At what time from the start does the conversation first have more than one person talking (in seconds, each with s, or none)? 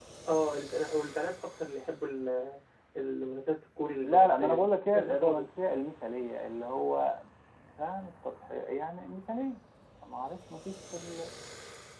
4.0 s